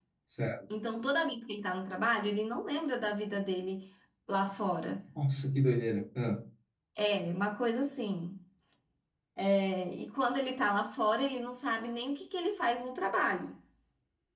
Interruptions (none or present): none